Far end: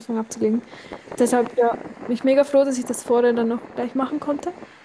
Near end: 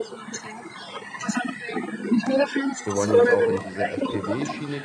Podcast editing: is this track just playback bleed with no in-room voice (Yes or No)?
No